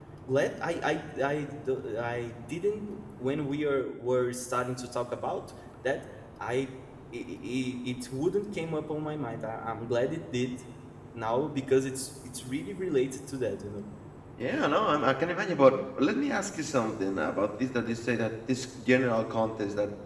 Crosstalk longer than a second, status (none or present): none